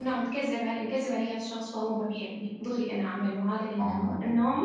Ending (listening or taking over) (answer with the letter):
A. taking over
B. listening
B